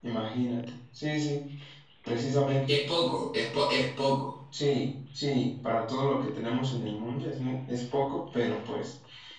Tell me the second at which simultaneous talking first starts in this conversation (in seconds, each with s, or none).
none